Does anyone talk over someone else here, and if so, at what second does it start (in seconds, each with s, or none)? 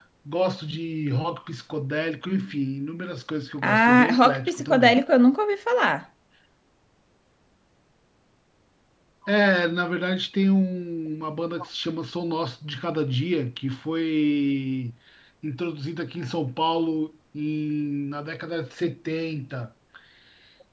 3.6 s